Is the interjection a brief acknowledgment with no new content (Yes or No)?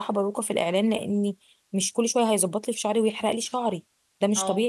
Yes